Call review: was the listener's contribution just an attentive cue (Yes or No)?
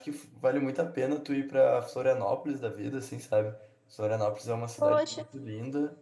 Yes